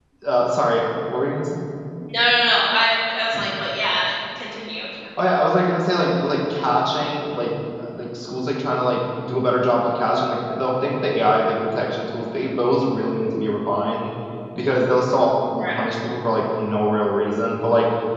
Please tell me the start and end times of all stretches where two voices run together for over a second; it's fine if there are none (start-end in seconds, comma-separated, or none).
none